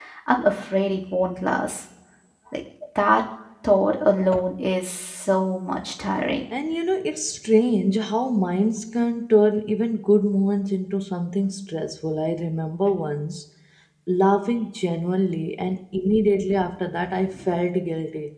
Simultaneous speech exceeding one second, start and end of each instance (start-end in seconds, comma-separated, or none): none